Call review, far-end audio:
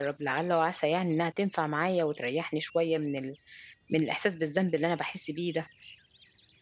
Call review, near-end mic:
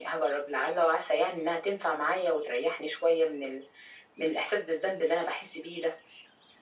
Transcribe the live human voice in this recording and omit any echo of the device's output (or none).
none